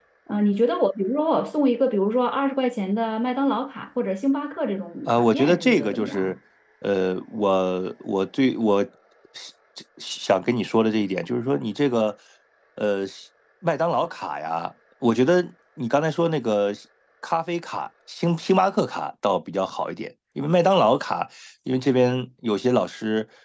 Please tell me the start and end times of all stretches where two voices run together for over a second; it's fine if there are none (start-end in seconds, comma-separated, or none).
5.1-6.3